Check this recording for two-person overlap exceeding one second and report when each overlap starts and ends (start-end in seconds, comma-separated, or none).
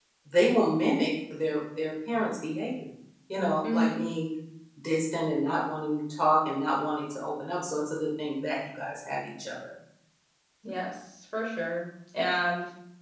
none